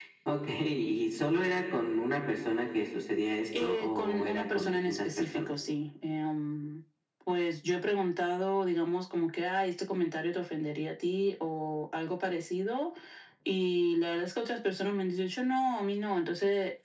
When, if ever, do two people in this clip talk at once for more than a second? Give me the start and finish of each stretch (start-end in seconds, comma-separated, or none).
3.6-5.5